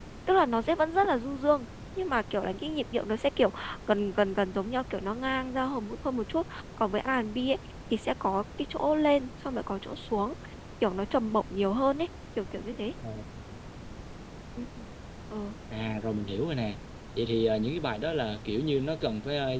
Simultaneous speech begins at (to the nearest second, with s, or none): none